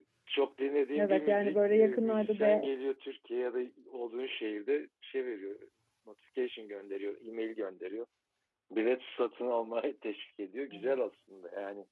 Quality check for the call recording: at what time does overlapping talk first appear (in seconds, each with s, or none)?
0.9 s